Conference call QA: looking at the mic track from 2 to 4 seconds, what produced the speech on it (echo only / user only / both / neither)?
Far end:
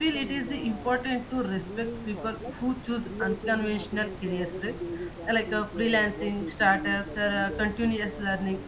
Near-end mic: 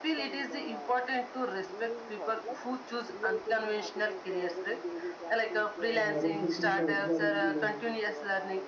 echo only